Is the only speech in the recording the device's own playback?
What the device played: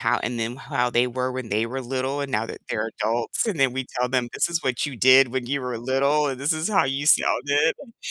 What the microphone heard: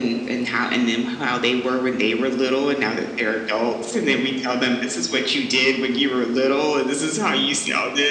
Yes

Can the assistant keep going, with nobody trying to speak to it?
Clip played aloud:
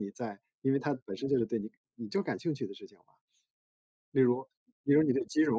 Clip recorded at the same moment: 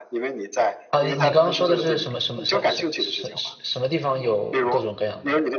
No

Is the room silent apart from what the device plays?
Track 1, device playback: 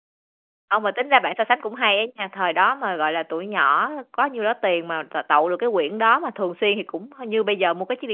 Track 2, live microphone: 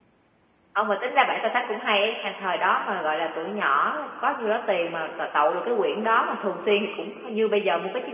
Yes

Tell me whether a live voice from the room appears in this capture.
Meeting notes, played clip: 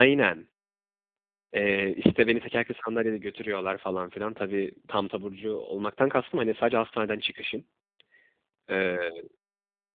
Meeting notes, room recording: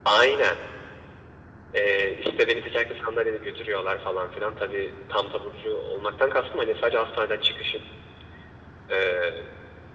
No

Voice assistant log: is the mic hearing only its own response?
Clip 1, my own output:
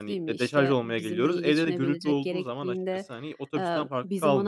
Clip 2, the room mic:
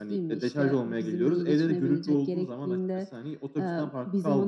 Yes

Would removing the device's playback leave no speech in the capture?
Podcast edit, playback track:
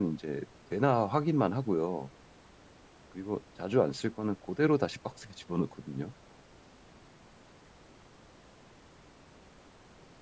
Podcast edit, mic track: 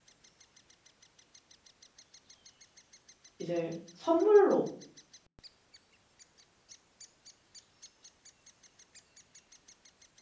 No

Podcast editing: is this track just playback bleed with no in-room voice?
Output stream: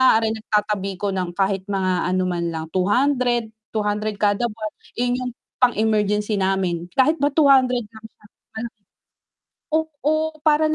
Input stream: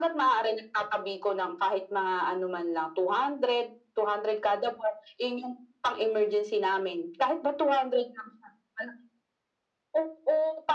Yes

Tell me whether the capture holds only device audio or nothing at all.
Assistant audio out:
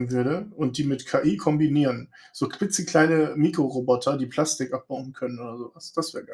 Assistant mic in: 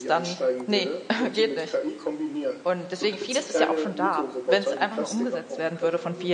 No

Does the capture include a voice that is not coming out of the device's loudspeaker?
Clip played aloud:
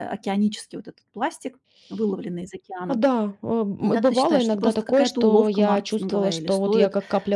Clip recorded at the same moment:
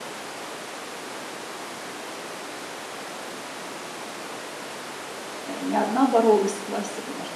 Yes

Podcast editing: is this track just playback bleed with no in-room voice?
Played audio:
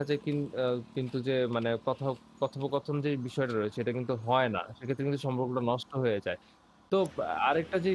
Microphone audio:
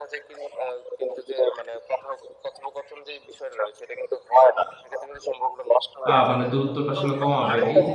No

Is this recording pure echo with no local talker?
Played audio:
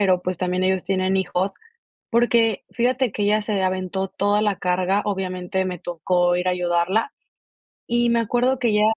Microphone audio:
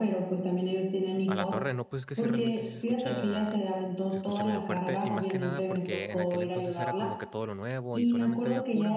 No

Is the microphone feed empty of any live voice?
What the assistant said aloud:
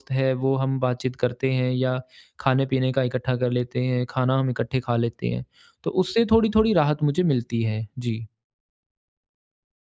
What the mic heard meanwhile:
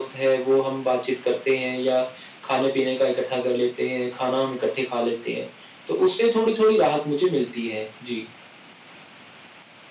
Yes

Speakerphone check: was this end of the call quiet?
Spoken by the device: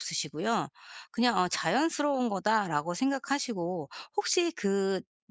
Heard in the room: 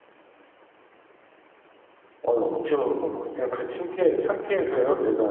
No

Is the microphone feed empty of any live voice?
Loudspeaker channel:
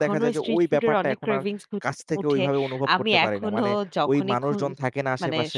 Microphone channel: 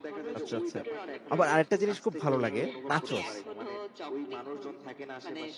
No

